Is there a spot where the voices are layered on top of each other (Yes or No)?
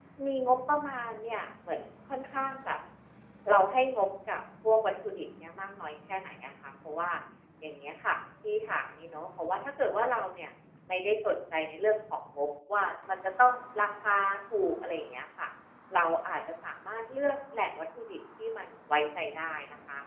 No